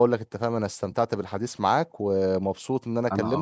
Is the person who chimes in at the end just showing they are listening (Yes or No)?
Yes